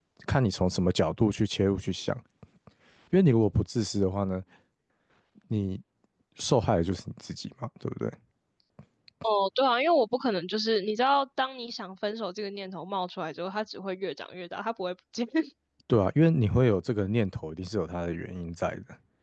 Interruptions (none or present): none